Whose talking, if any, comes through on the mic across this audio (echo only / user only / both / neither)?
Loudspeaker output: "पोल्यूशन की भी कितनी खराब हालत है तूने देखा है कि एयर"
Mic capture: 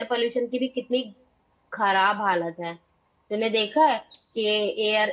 echo only